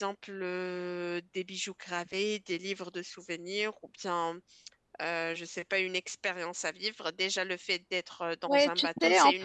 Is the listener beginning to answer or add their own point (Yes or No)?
Yes